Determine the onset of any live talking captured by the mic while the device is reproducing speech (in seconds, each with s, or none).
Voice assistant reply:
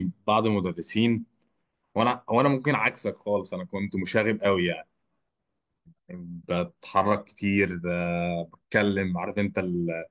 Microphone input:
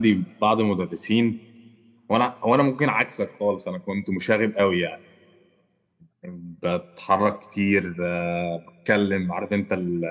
none